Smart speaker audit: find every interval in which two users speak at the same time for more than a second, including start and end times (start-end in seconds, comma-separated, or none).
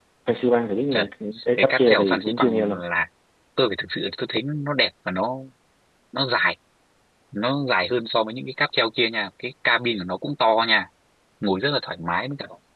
1.6-2.8